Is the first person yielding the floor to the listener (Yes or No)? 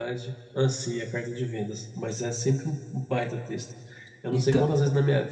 No